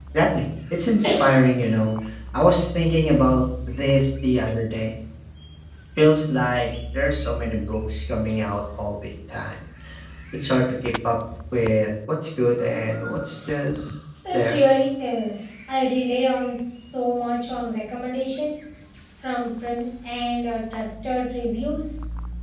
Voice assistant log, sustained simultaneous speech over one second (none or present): none